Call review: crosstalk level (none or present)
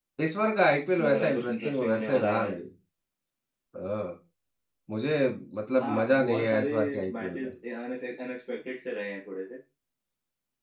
present